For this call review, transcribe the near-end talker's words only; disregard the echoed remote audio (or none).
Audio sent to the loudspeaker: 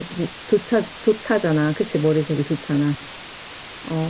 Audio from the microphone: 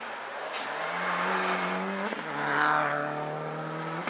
none